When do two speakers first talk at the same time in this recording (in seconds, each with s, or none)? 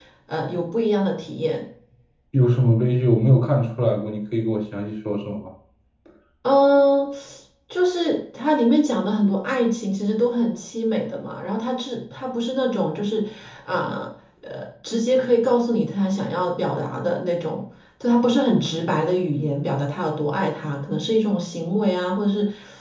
none